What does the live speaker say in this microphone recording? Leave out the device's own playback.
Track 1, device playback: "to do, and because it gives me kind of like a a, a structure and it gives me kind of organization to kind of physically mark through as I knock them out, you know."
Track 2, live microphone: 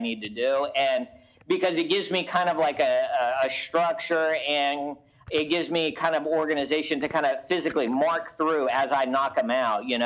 none

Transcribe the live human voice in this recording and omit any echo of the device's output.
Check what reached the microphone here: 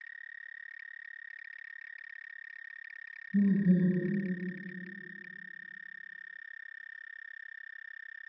うんうん。

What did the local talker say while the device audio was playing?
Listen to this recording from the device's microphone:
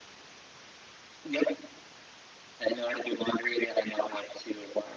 none

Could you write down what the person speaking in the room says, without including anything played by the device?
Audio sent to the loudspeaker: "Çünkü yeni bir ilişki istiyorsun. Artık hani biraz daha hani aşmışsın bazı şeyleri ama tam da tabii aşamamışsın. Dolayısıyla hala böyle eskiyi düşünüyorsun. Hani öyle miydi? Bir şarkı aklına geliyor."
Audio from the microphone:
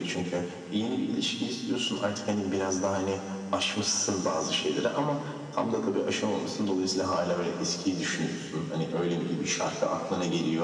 none

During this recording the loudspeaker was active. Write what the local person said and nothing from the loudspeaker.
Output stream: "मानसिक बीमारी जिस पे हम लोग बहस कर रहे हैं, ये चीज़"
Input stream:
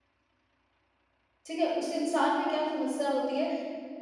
ठीक है? उस इंसान में क्या समस्या होती है

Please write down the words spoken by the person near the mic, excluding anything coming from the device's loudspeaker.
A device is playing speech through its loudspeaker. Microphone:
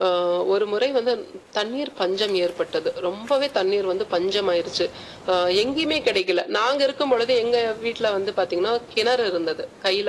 none

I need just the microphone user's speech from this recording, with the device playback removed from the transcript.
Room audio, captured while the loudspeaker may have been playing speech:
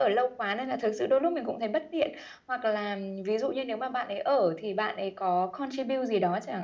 none

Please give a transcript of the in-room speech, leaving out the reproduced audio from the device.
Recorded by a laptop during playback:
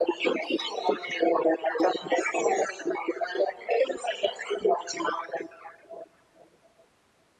none

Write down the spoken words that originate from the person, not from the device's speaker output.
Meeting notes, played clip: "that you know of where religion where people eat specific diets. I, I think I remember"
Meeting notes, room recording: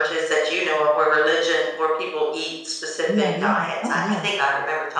yeah, yeah. Oh, yeah.

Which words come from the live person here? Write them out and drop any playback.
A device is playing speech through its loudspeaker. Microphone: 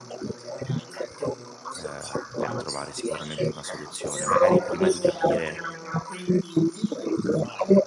ehm, per trovare sicuramente una soluzione. Magari prima di capire

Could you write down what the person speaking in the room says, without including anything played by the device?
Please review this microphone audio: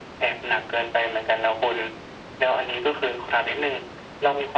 none

